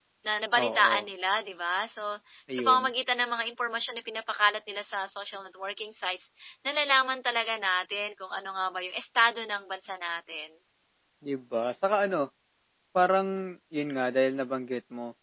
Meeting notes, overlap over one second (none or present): none